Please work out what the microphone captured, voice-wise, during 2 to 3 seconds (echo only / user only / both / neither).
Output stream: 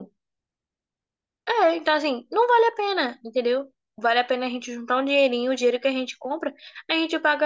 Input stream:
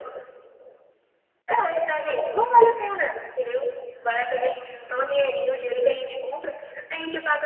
echo only